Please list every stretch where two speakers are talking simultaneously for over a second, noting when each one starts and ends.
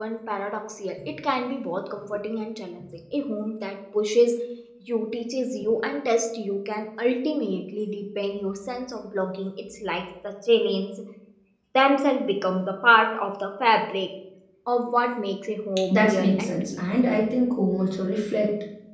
15.9-17.2

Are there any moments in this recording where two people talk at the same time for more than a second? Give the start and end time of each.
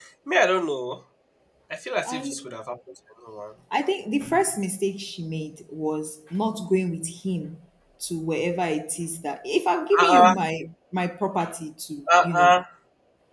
none

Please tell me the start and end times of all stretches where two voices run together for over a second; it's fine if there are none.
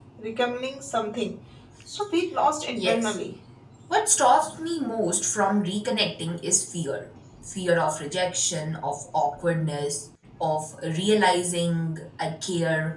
none

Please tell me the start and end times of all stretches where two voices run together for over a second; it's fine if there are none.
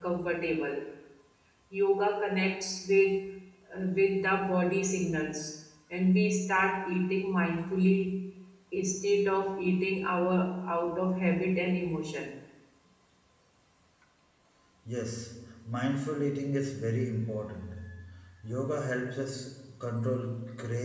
none

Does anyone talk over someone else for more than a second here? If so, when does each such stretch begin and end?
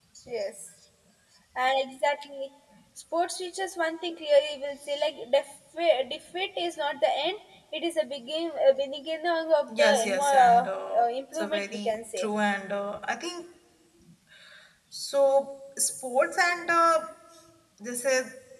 9.7-12.3

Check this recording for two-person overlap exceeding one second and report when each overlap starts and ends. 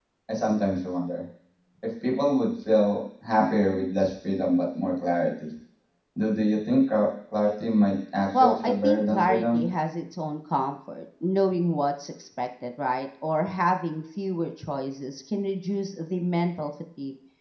8.3-9.6

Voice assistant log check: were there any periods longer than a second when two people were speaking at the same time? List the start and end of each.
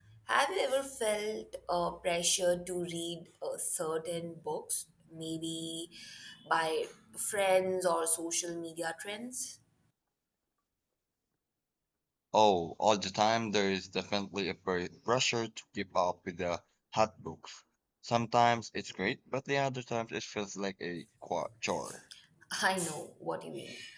none

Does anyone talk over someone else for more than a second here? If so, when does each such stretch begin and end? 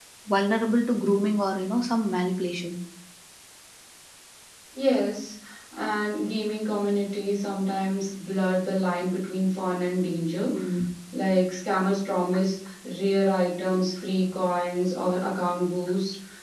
none

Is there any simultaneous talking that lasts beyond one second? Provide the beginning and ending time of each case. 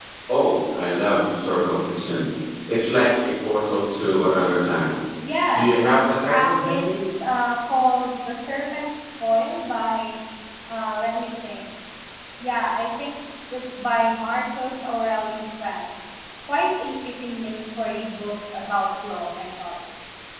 5.5-6.9

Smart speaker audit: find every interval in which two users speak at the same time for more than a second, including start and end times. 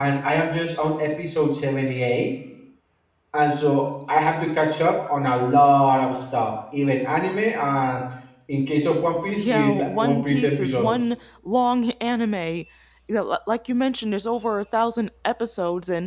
9.3-11.1

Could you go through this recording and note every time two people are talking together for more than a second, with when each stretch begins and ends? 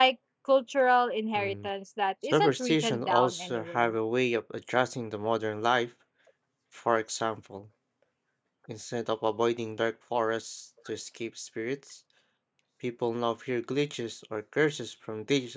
2.2-3.9

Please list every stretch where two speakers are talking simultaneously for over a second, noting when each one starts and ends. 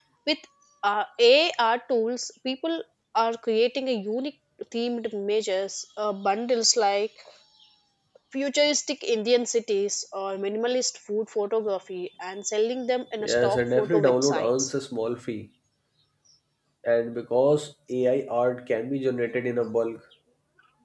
13.2-14.7

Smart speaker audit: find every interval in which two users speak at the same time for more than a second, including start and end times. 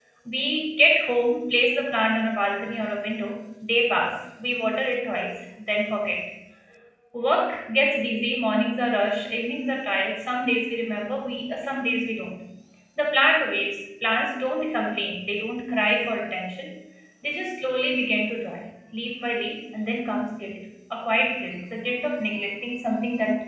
none

